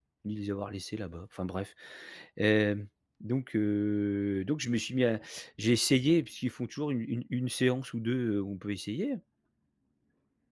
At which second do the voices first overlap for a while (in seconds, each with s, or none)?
none